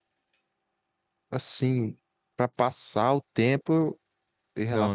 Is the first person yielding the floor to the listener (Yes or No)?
No